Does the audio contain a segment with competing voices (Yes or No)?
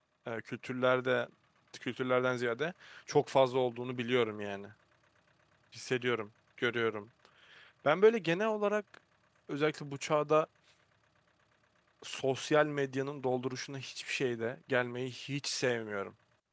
No